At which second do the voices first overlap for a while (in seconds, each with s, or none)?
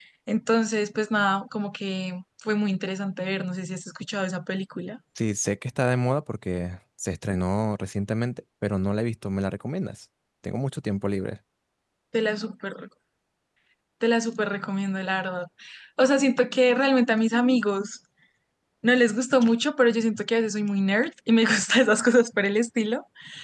none